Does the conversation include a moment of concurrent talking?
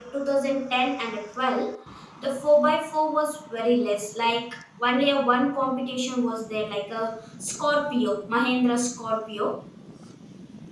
No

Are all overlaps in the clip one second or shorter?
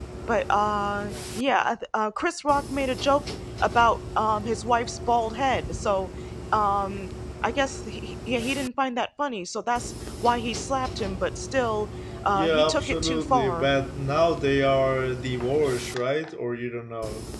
No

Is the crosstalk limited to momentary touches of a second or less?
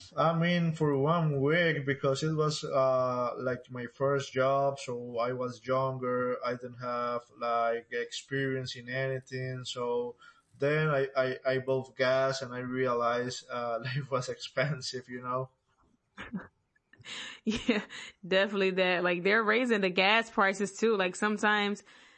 Yes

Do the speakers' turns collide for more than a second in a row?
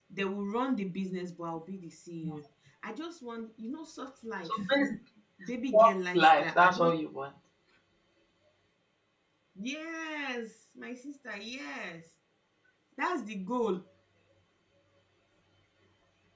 Yes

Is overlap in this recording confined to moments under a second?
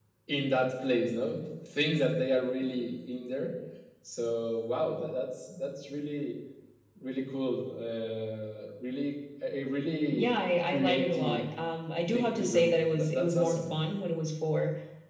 No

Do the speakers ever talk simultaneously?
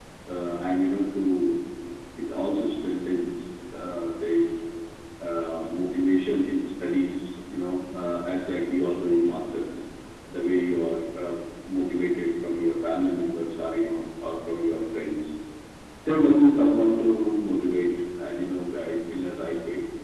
No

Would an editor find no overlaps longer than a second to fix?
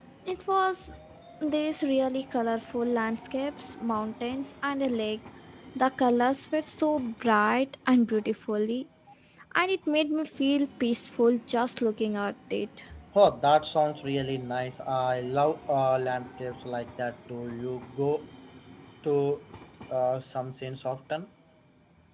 Yes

